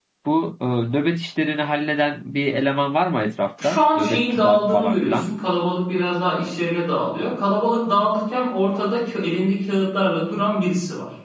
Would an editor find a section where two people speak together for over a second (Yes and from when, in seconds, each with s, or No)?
Yes, from 3.6 s